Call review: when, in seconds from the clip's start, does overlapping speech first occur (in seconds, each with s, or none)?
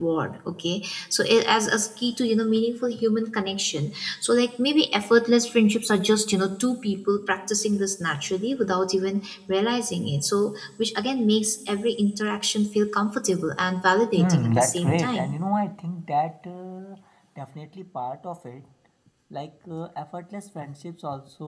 14.1 s